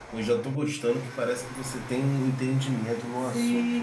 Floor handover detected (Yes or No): Yes